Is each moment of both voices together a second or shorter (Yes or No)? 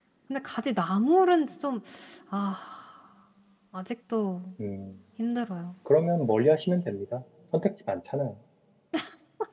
Yes